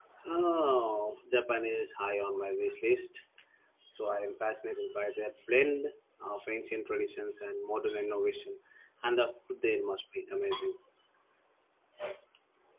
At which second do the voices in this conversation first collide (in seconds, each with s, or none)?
none